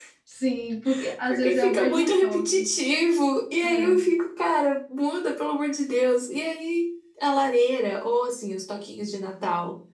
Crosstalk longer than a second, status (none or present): present